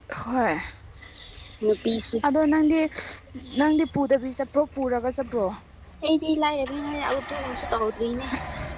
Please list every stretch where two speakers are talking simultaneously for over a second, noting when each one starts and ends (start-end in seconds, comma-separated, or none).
none